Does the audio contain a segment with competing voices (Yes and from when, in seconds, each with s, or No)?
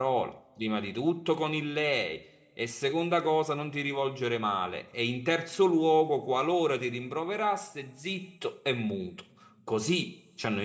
No